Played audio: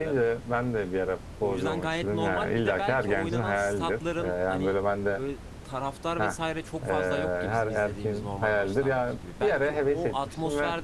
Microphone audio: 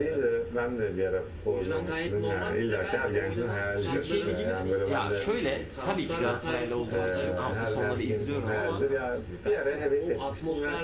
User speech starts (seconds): 3.8 s

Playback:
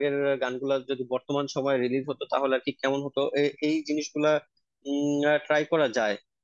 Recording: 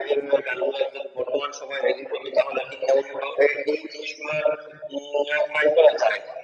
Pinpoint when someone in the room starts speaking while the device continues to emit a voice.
none

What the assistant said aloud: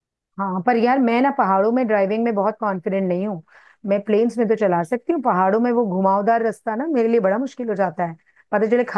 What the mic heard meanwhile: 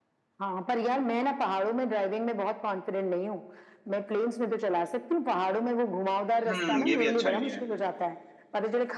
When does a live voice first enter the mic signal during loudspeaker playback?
6.5 s

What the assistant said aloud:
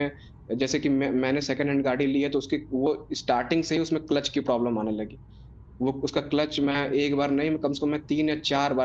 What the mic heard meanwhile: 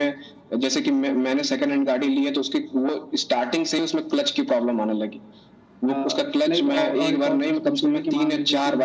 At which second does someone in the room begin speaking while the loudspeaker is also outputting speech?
5.9 s

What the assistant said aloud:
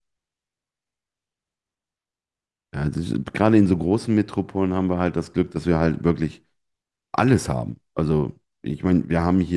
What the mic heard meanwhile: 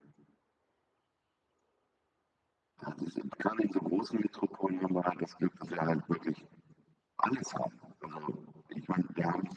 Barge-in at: none

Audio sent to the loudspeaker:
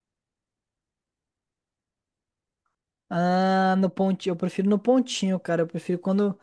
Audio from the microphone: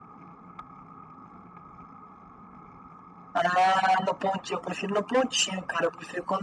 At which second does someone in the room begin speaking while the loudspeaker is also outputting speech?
none

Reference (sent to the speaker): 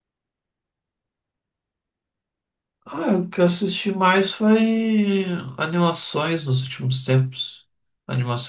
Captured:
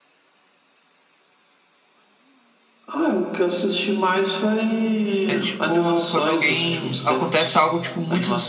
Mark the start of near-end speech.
5.2 s

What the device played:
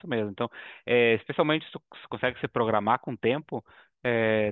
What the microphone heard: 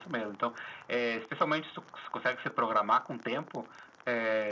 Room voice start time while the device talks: none

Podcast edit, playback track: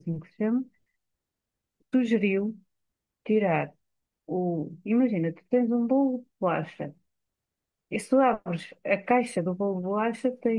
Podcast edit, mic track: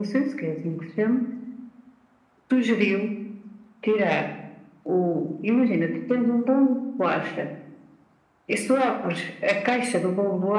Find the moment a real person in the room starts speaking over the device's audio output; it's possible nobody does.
none

